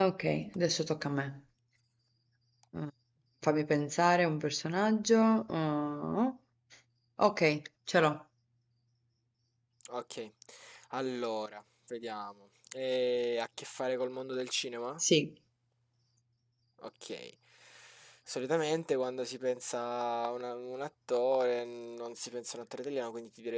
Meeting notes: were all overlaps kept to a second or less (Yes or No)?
Yes